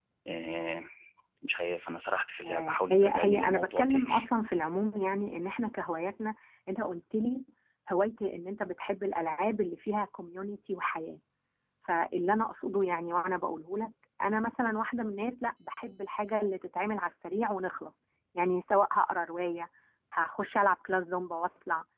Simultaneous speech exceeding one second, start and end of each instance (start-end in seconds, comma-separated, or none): 2.5-4.0